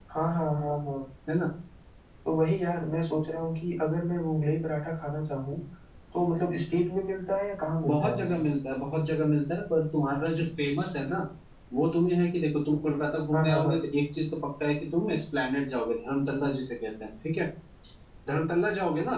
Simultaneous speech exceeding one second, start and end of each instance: none

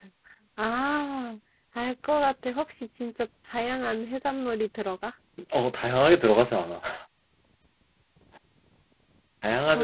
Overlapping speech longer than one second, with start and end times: none

